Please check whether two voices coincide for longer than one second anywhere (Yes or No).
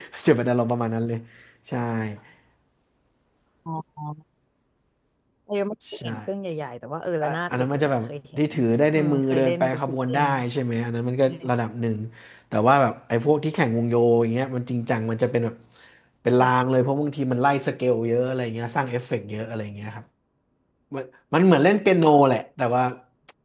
Yes